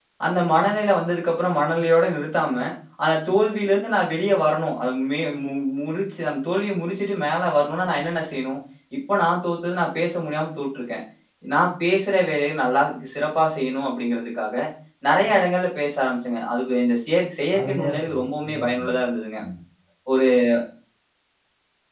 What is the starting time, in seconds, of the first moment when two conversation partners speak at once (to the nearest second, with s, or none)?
18 s